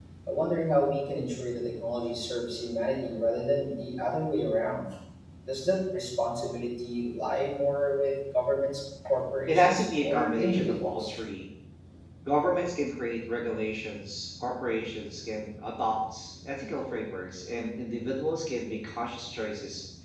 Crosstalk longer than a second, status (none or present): present